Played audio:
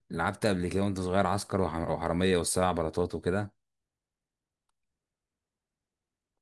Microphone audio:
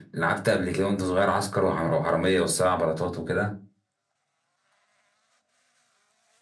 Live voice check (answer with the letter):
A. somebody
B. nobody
B